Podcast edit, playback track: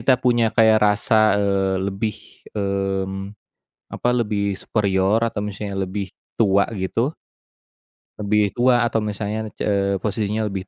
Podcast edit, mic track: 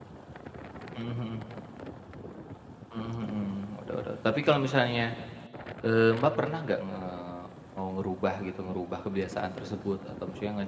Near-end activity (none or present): present